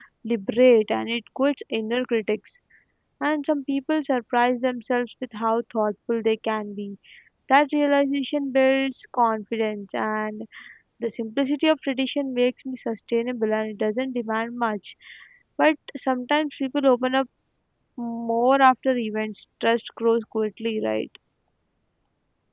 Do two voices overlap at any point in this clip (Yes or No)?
No